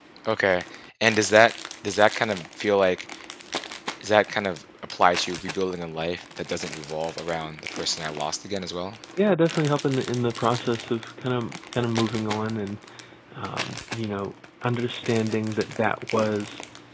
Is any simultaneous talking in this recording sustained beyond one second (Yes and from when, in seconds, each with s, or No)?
No